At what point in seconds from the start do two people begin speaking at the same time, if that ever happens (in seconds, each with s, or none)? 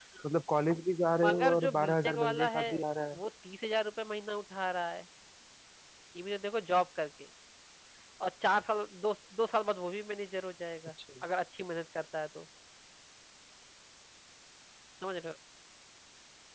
1.2 s